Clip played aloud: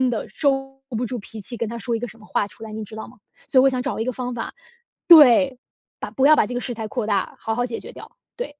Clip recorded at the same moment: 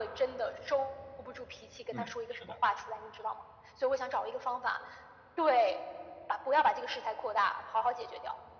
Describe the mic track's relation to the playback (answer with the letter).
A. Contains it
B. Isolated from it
A